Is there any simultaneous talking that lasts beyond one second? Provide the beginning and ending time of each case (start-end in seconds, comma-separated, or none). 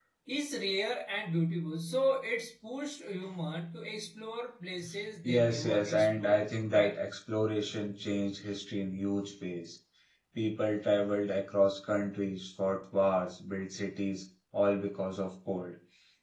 5.2-7.0